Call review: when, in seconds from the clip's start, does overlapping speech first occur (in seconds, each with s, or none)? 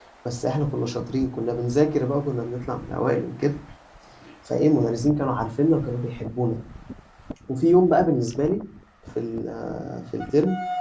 none